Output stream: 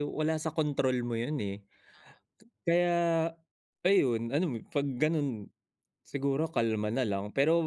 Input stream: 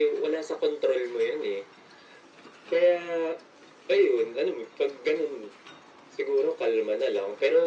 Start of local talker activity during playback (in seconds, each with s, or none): none